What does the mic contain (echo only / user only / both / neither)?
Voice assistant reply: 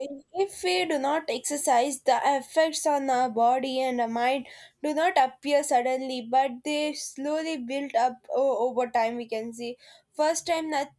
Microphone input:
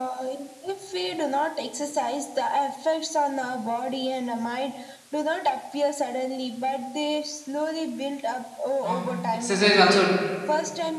both